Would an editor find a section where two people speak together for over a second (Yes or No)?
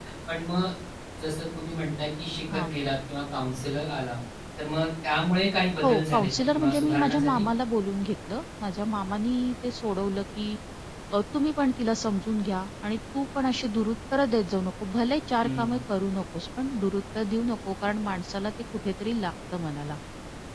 Yes